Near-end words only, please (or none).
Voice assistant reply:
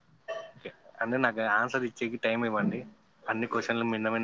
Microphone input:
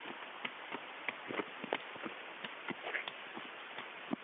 none